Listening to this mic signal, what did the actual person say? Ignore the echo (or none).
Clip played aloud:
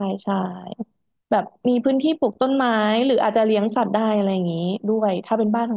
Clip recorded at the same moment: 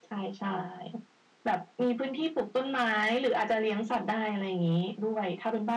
none